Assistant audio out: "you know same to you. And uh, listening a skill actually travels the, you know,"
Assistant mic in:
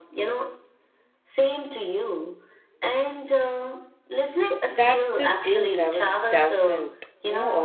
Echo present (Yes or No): Yes